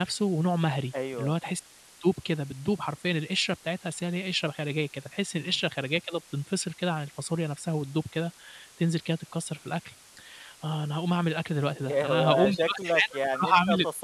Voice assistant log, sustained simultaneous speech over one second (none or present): present